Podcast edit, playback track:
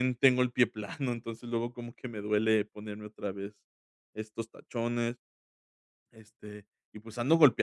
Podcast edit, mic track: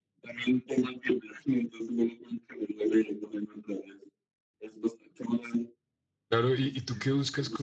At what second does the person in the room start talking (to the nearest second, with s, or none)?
6 s